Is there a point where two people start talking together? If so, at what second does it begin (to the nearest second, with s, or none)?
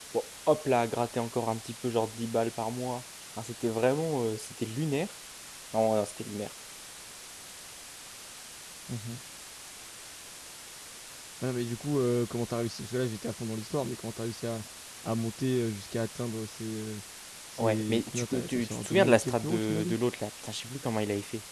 18 s